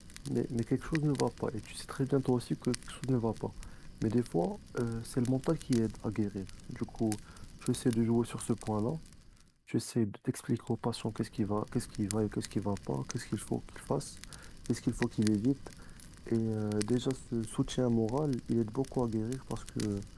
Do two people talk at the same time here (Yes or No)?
No